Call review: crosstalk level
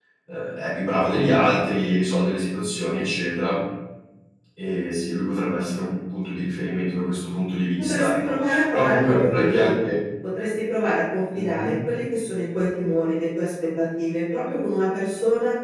present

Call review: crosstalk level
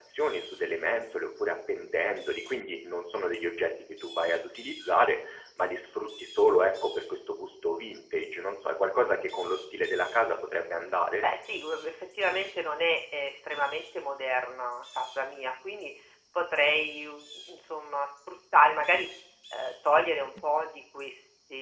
none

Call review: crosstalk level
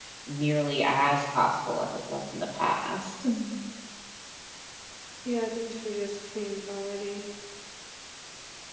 none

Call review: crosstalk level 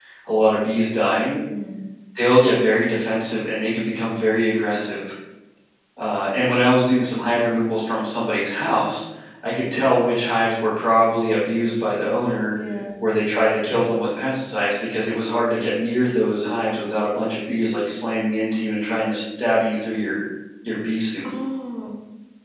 none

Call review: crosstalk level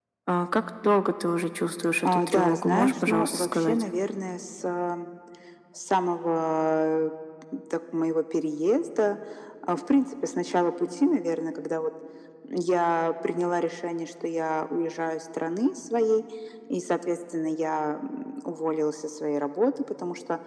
present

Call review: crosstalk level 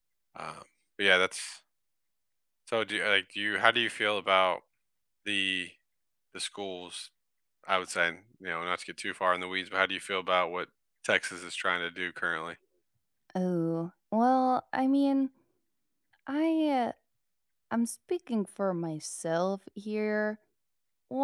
none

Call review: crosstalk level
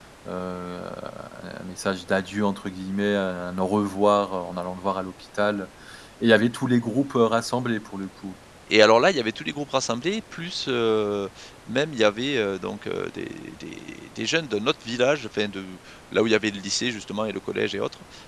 none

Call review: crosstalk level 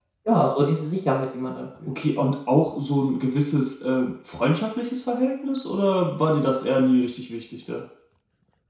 none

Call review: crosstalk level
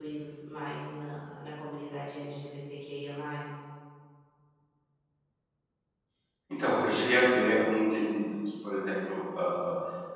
none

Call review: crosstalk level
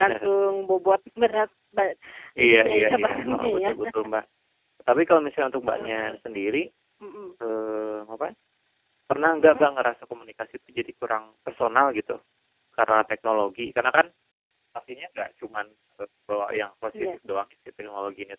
present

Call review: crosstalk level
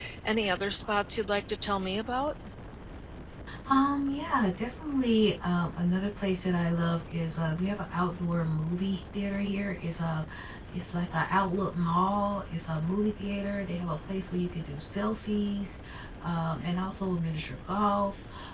none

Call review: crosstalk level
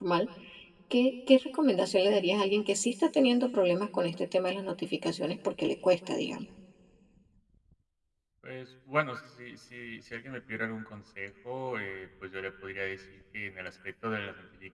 none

